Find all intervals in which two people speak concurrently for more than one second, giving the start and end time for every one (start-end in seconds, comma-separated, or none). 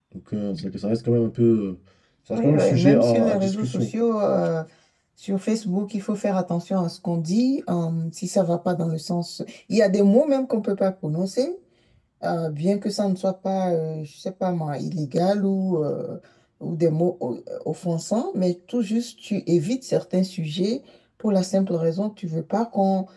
2.4-3.9